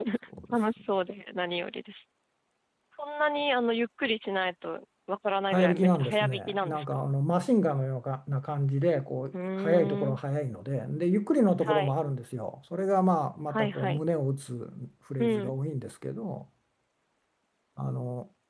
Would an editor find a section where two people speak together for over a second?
Yes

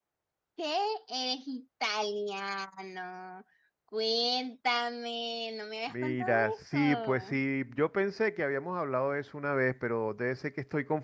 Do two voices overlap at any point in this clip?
Yes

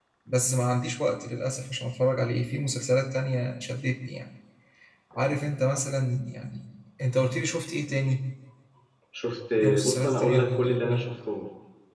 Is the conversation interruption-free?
No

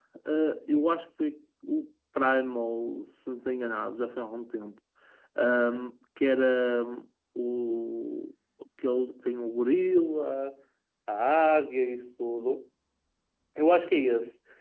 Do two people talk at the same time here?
No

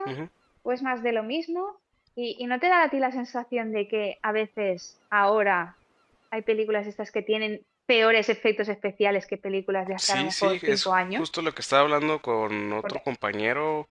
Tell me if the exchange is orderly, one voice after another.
No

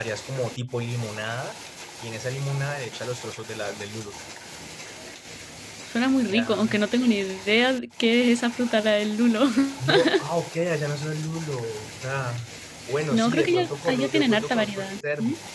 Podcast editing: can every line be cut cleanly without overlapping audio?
No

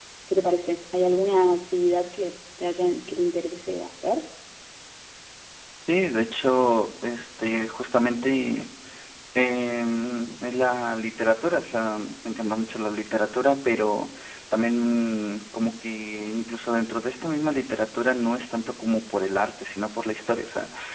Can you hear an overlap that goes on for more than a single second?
No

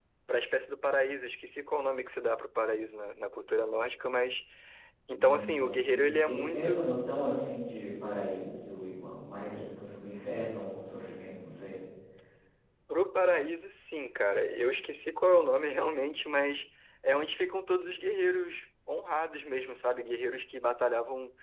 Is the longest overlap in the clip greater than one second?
Yes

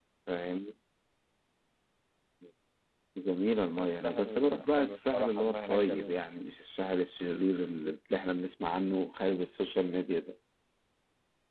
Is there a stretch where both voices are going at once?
Yes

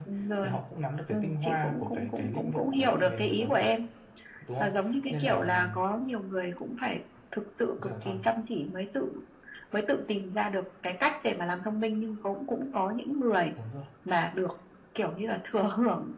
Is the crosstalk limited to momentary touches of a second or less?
No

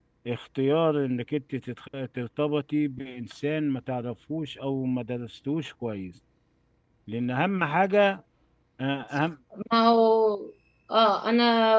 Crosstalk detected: No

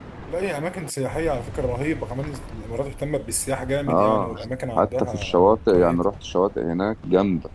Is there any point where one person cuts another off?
Yes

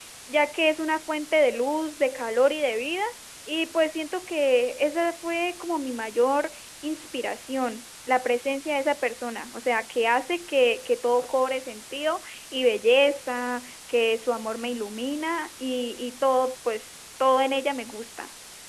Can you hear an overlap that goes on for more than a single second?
No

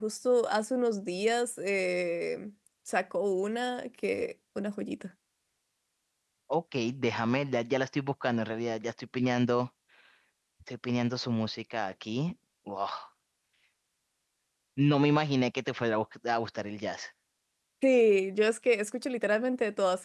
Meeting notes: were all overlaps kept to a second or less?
Yes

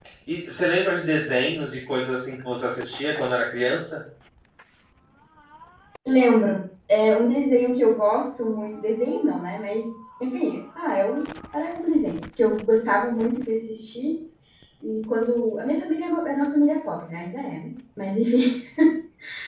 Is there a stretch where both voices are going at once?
No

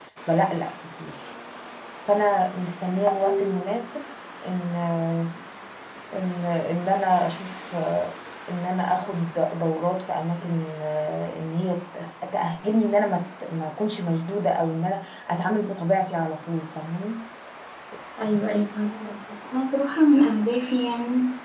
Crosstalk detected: No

